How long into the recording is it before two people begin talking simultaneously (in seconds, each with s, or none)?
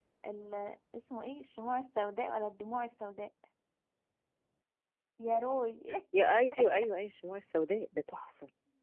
none